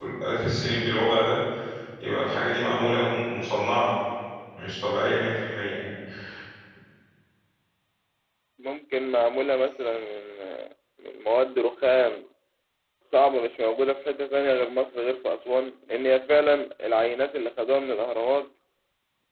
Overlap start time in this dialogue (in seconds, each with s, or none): none